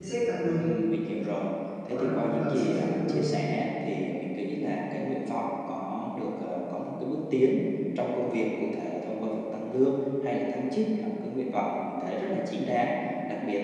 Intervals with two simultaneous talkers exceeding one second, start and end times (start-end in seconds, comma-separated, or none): 1.9-3.3